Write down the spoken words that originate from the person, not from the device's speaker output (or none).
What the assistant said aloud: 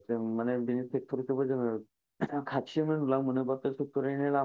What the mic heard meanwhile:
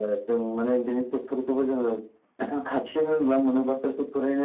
none